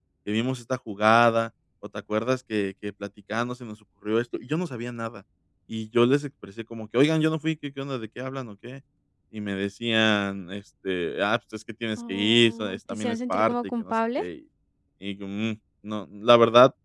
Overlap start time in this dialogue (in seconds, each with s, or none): 12.0 s